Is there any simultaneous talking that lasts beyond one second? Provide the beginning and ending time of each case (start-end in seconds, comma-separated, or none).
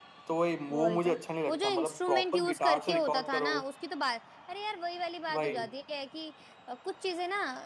1.5-3.5